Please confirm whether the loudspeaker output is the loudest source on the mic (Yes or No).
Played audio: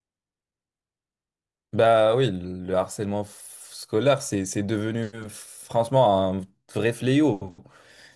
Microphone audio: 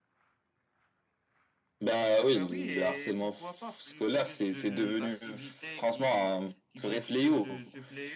Yes